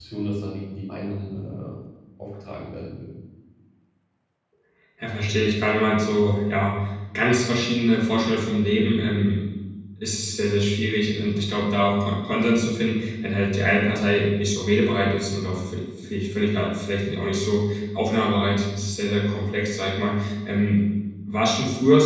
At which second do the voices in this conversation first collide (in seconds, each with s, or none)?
none